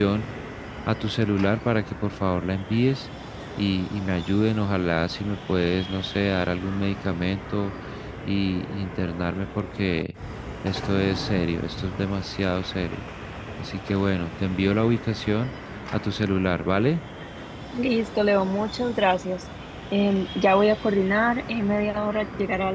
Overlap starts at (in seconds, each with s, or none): none